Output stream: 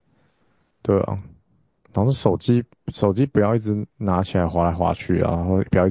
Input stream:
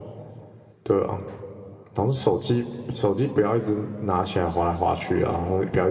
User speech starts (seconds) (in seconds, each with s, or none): none